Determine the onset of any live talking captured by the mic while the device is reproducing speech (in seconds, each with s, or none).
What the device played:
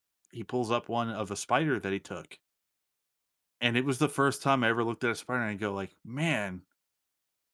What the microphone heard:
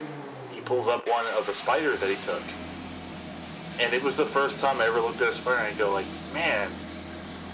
none